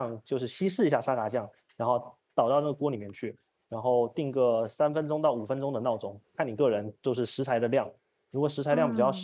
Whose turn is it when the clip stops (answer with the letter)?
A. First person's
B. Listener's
A